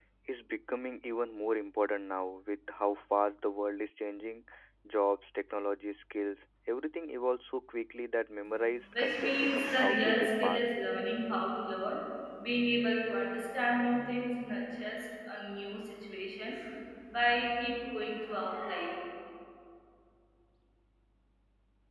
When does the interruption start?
8.9 s

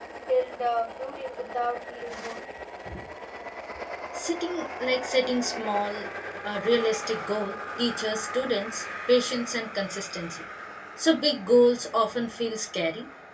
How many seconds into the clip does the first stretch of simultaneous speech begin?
none

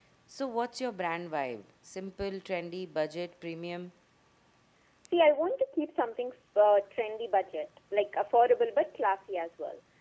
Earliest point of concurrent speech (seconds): none

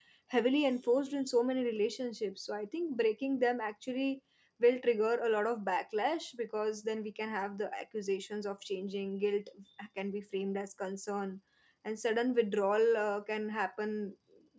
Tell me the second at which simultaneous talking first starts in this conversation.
none

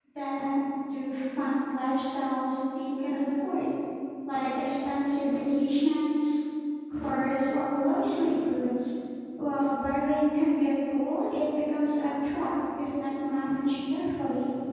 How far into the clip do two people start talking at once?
none

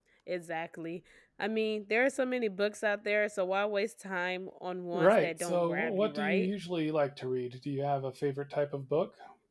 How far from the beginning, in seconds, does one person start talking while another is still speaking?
4.9 s

